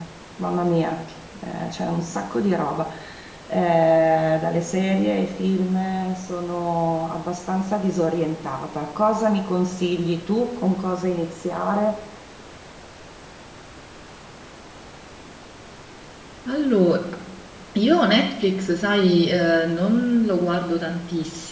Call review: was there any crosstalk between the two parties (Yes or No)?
No